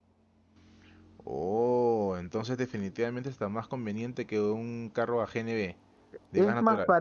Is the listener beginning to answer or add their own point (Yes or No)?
Yes